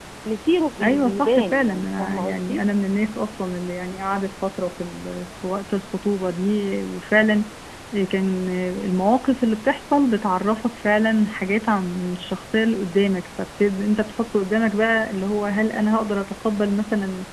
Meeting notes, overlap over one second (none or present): present